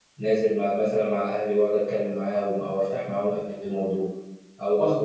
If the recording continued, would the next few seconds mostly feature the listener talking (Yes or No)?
No